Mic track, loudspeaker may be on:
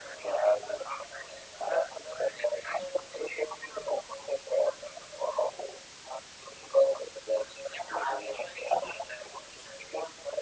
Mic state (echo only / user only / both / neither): echo only